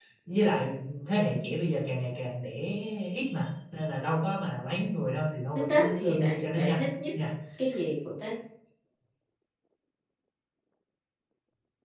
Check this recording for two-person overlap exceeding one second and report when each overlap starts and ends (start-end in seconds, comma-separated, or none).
5.5-6.8